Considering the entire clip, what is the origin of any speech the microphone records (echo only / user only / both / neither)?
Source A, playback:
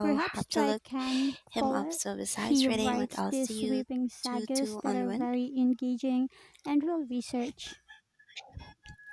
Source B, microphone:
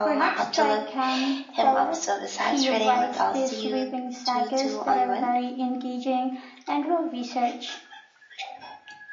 echo only